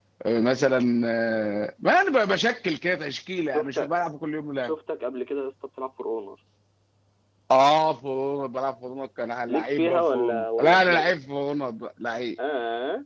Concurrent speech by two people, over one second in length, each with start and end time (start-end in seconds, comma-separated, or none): 9.5-11.2